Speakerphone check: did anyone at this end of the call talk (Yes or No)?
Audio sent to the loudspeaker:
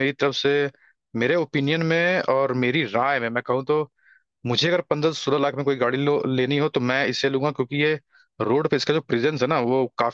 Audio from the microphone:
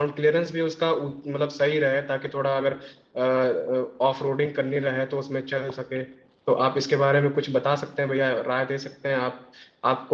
Yes